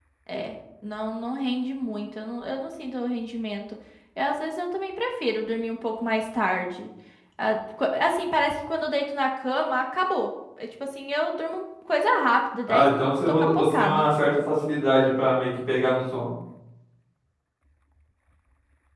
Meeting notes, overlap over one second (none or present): present